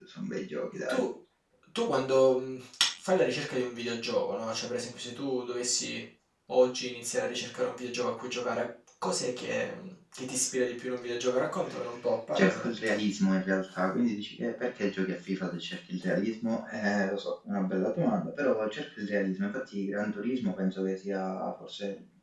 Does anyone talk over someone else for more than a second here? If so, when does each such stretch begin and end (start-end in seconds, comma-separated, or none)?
none